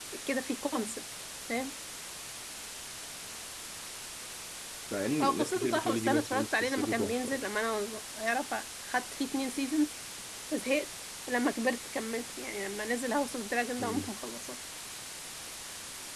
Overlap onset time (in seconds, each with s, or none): 5.2 s